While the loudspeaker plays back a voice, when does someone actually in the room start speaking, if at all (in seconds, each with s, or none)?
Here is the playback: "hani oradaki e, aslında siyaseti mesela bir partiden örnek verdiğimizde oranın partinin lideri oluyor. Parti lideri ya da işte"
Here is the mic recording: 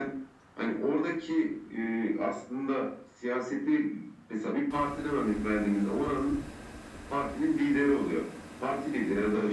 none